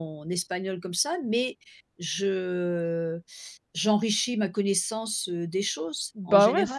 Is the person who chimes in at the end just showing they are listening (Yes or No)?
No